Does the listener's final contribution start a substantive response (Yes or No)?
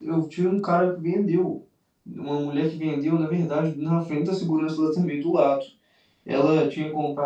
No